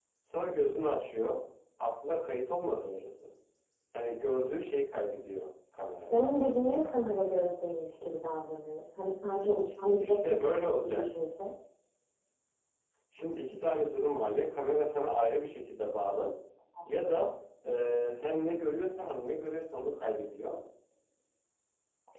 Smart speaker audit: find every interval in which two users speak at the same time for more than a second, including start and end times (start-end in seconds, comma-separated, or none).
none